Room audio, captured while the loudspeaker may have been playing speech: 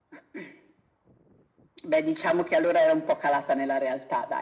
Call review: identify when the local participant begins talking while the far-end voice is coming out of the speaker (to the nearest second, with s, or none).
none